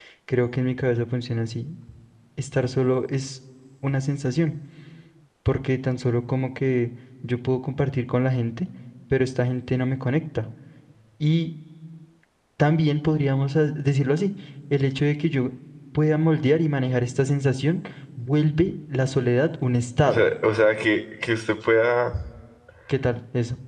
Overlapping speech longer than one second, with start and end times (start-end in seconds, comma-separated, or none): none